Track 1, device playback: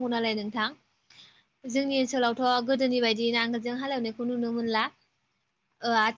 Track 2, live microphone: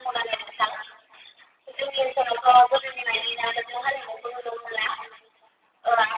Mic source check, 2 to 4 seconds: echo only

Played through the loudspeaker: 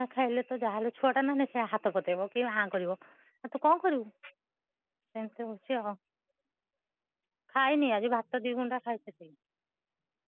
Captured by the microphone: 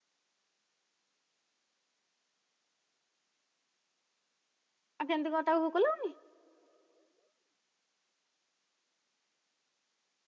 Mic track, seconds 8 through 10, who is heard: neither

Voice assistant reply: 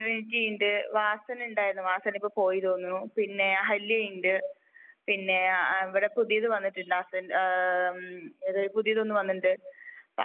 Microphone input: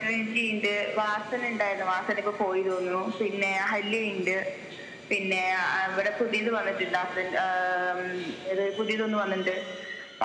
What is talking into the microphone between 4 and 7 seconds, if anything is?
echo only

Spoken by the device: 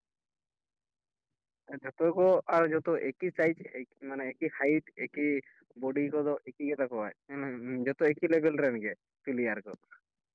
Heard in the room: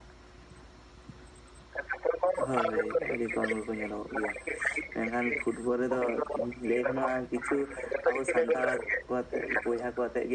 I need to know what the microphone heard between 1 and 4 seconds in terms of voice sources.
both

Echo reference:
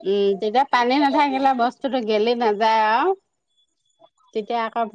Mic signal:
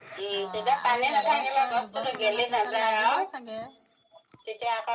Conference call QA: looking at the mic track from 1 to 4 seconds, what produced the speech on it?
both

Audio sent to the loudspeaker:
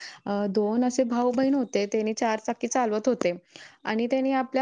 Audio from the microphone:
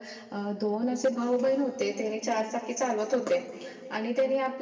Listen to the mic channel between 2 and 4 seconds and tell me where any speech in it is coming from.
echo only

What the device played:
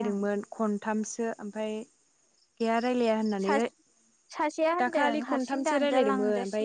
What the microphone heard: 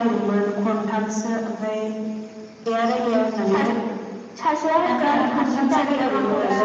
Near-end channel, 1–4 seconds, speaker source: echo only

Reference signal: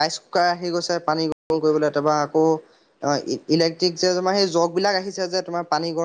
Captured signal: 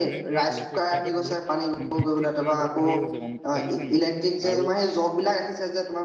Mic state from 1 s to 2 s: both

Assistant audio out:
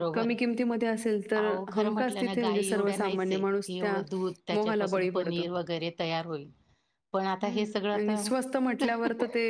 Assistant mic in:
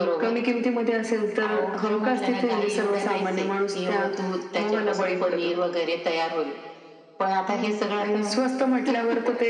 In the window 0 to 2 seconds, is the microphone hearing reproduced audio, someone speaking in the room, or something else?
echo only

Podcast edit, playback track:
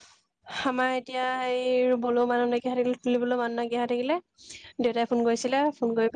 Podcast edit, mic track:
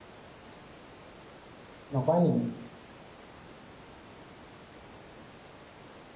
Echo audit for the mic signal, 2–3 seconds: user only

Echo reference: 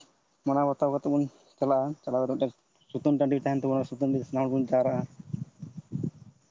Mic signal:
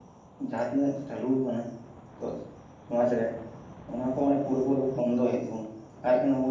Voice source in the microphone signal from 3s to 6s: user only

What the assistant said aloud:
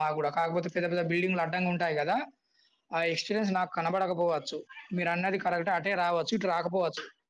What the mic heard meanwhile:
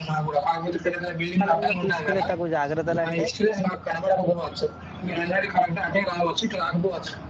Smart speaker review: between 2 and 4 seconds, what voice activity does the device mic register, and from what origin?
both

